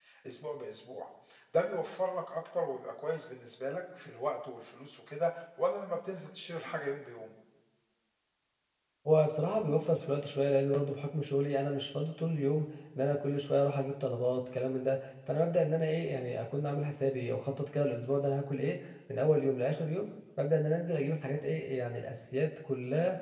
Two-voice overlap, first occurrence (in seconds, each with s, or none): none